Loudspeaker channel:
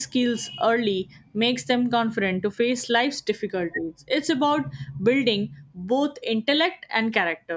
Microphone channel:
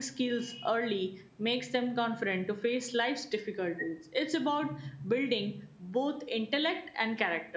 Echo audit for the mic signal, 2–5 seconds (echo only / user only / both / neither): echo only